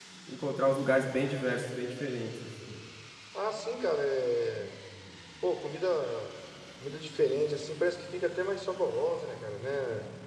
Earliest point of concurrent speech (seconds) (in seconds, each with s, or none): none